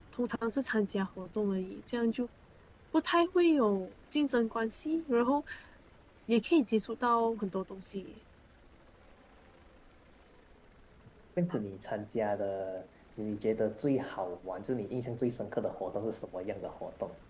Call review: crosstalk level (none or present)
none